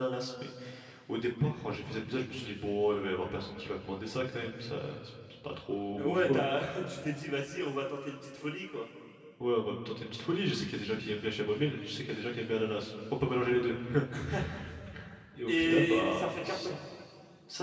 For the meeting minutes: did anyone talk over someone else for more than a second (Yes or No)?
Yes